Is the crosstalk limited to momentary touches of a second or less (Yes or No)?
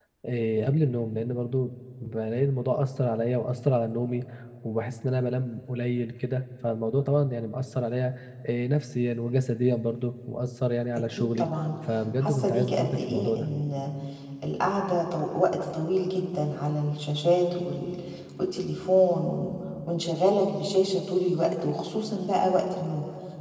No